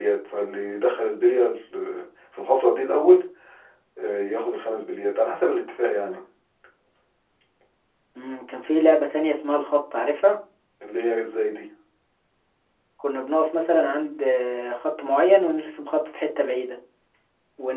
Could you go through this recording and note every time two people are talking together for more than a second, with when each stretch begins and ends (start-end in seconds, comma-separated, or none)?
none